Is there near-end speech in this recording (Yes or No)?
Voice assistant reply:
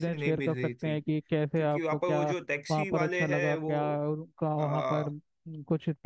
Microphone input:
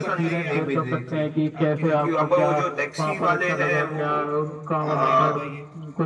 Yes